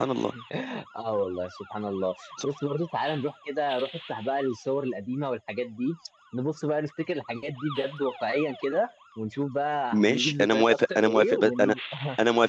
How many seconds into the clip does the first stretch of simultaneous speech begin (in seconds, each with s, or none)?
9.9 s